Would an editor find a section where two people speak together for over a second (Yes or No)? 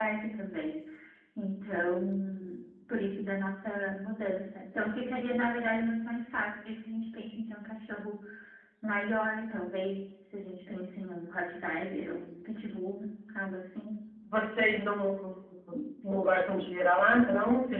No